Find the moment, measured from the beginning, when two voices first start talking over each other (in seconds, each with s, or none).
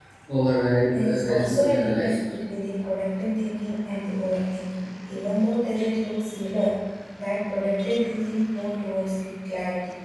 0.9 s